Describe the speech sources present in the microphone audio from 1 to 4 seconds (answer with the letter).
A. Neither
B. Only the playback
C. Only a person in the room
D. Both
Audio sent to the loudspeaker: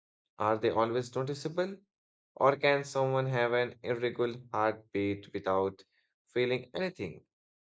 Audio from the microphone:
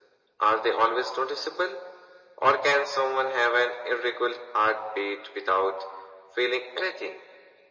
B